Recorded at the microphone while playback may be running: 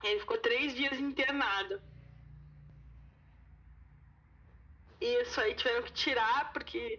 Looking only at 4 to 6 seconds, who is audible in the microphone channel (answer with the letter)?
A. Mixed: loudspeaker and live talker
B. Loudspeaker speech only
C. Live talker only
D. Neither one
B